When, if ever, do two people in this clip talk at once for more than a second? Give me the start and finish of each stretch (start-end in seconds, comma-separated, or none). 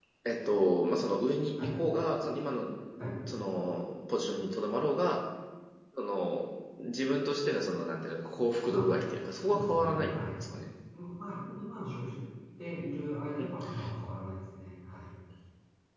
8.7-10.2